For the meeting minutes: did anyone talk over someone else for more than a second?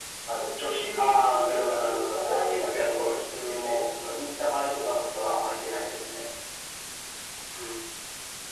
Yes, from 1.0 s

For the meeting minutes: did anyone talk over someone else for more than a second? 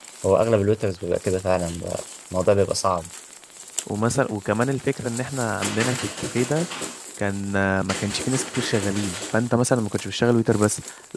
No

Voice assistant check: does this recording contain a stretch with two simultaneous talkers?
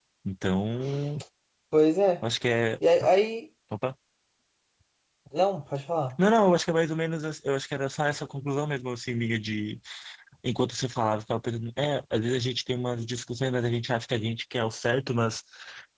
No

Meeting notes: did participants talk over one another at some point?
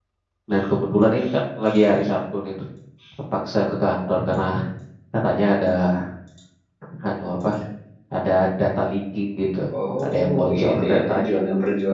Yes, from 10.0 s

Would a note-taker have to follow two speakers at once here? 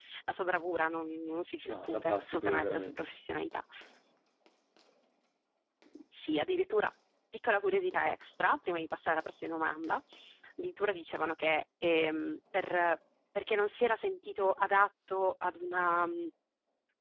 Yes, from 1.6 s

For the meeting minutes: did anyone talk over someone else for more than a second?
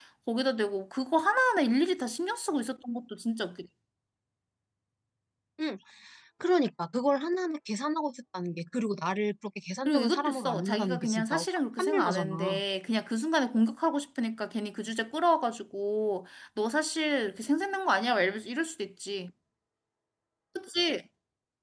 Yes, from 9.9 s

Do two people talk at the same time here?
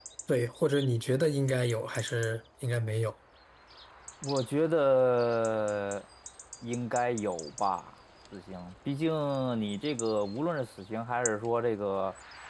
No

